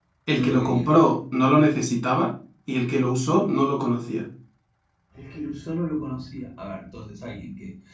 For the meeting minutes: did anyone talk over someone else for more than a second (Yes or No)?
No